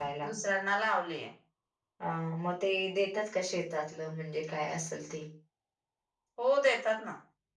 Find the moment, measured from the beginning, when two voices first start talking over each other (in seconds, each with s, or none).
none